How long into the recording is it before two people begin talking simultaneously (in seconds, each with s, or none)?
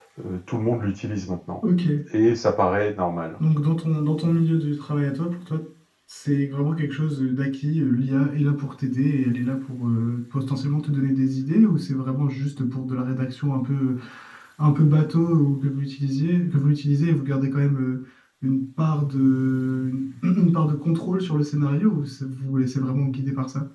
none